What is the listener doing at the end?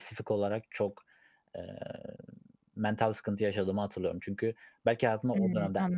listening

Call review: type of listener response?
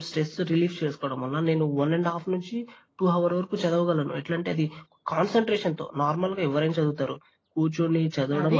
taking over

